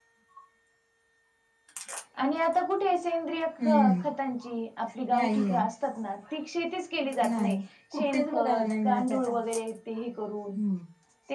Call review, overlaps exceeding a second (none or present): present